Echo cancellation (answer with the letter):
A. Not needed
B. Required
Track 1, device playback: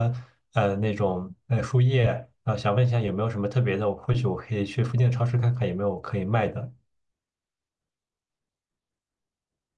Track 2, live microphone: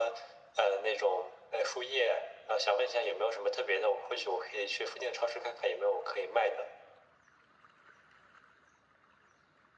B